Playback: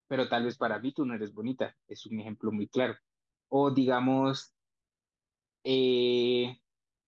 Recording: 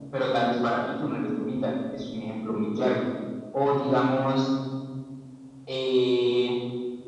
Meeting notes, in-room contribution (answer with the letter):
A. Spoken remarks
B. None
B